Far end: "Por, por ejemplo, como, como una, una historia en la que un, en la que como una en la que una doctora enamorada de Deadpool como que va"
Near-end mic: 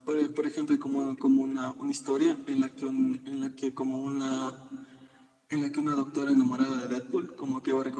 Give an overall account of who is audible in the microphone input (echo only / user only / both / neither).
echo only